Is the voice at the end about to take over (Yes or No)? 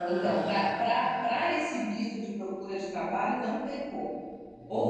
No